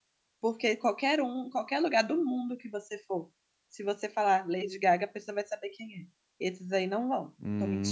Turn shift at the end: Yes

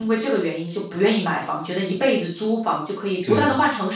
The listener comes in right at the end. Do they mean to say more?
No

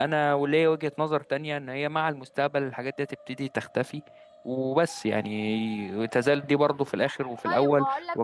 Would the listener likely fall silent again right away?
No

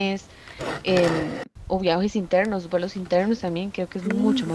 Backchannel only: No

